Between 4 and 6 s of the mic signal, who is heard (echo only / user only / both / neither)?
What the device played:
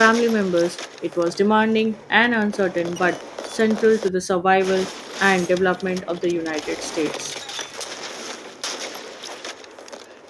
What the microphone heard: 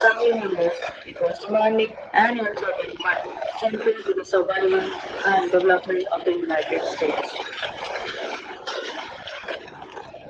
echo only